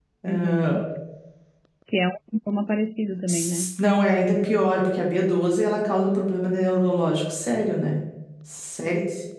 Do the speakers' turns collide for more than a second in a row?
No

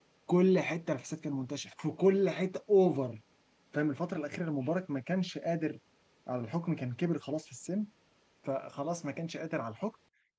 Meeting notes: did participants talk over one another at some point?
No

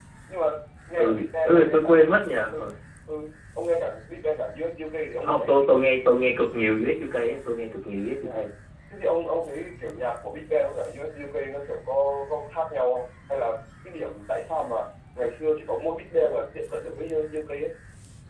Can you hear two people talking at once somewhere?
Yes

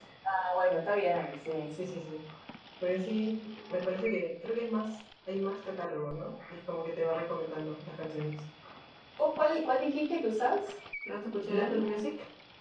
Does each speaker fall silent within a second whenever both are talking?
Yes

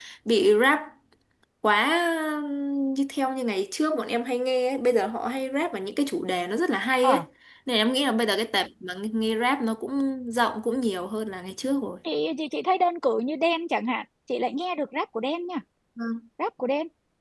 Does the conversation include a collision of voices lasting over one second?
No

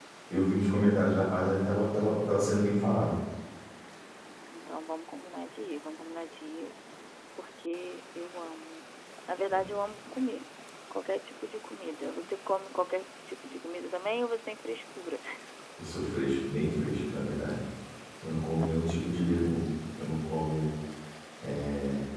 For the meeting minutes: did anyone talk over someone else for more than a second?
No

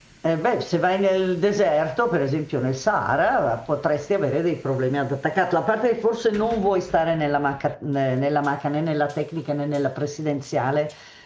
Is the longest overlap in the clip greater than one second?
No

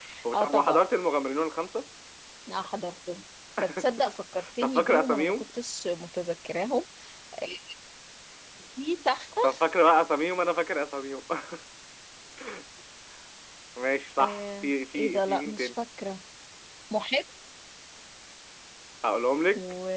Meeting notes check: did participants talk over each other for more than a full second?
Yes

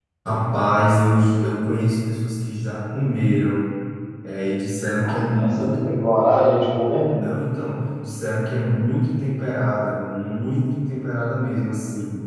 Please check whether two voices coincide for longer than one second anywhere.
No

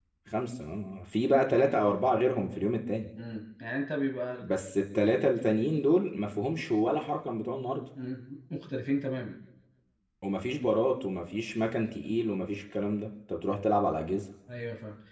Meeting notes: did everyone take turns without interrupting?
Yes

